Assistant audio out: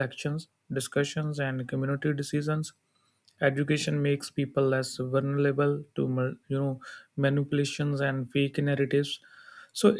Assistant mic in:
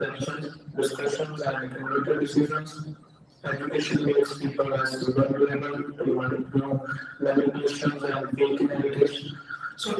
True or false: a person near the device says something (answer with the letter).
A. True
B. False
B